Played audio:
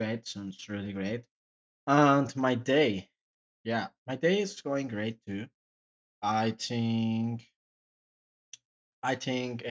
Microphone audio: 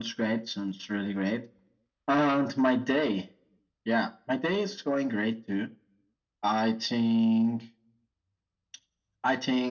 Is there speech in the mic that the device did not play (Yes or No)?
No